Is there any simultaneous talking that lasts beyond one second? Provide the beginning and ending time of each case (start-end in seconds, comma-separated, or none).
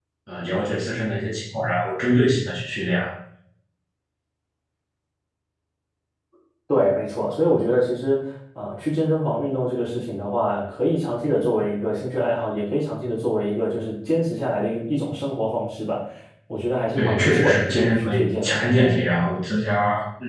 17.0-18.6